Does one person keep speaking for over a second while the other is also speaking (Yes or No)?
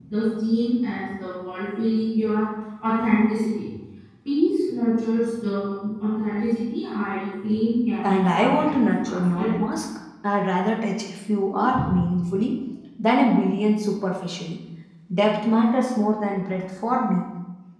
Yes